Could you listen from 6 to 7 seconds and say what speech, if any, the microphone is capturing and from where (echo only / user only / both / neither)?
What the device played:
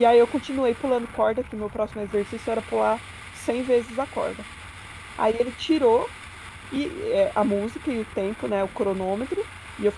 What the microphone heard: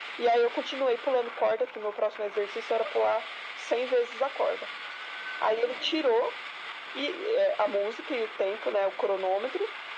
echo only